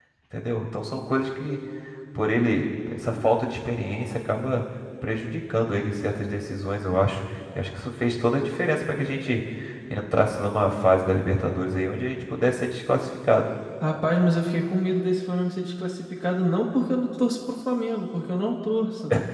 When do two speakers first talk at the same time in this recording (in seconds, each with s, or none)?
none